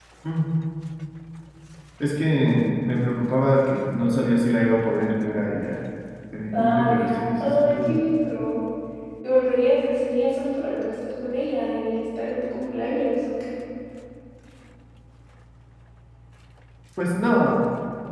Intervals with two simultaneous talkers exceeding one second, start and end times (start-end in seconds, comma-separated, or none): 6.6-8.0